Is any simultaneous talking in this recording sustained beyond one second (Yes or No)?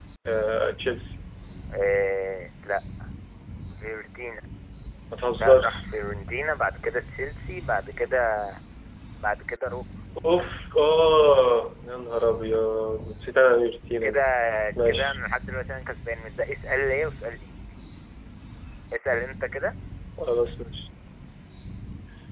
No